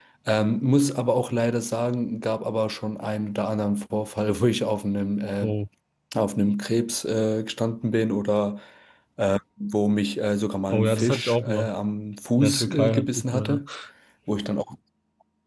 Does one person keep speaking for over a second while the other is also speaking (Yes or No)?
Yes